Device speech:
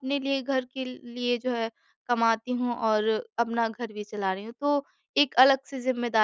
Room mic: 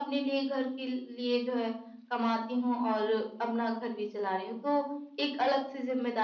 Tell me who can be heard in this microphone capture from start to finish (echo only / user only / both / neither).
echo only